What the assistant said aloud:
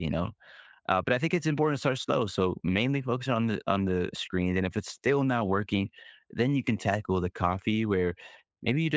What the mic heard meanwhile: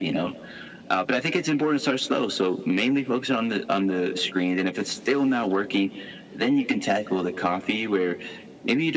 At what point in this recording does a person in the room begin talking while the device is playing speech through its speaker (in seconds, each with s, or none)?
none